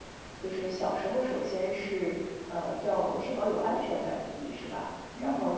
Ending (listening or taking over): listening